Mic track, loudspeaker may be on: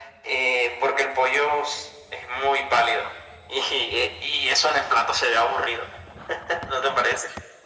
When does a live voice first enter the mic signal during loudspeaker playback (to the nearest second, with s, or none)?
none